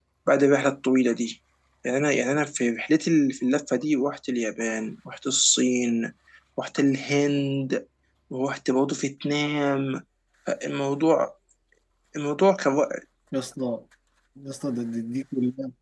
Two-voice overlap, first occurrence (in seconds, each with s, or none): none